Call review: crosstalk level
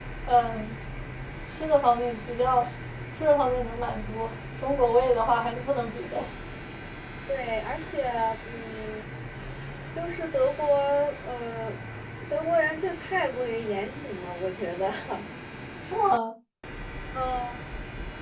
none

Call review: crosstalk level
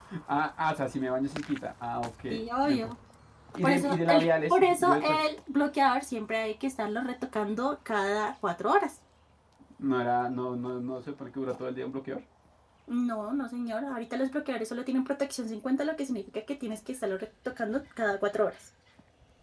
present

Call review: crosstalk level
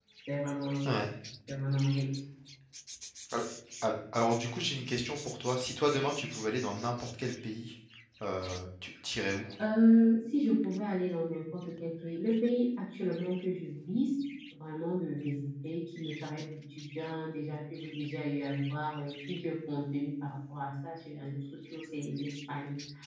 none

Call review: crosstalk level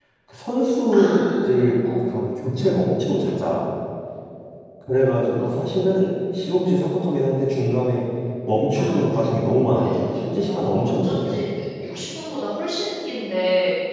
present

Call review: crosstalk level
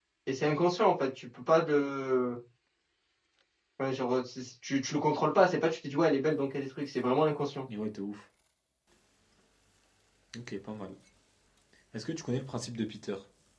none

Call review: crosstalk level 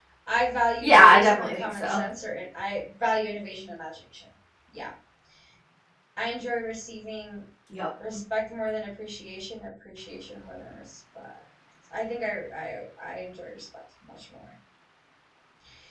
present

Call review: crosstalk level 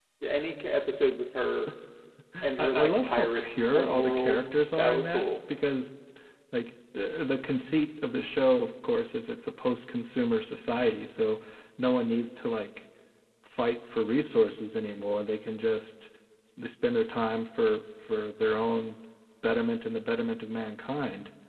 present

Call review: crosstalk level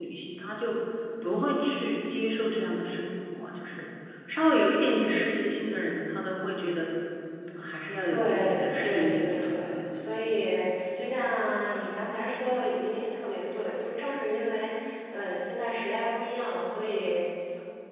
present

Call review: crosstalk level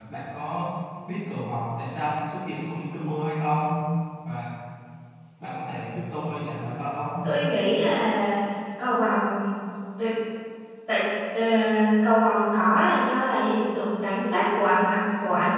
none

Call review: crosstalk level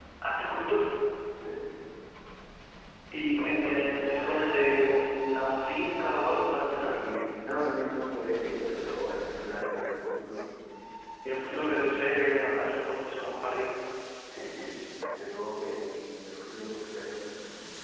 present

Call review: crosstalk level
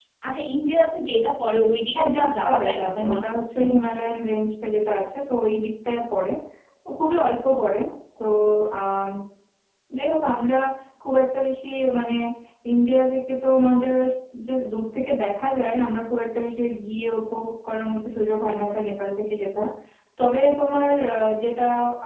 present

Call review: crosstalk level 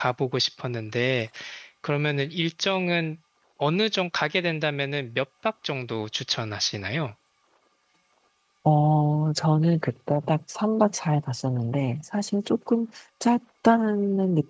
none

